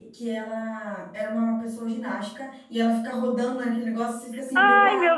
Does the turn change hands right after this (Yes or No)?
Yes